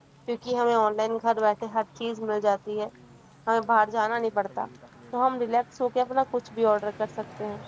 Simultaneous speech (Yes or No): No